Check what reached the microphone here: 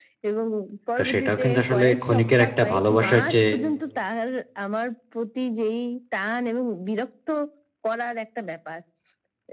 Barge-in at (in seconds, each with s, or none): 1.0 s